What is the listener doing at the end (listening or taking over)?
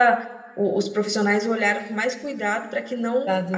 listening